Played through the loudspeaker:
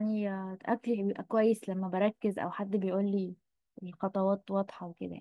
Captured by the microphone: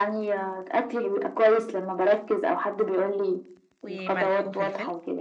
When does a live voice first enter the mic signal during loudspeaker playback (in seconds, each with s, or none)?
3.8 s